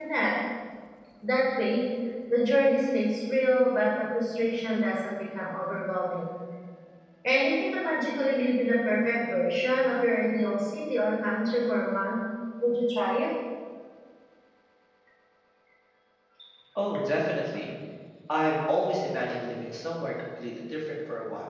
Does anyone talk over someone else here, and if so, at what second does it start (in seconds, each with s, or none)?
none